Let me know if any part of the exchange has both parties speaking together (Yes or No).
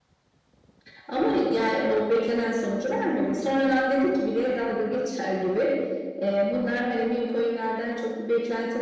No